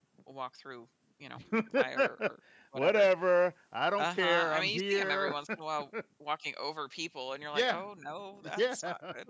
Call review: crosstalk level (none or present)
present